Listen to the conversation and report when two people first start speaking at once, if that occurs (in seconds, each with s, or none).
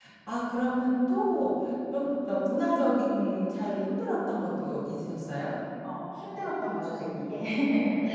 none